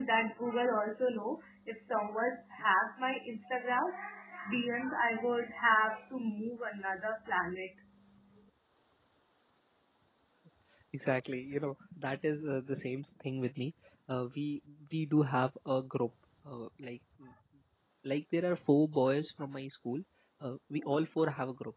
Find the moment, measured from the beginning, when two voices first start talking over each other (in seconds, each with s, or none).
none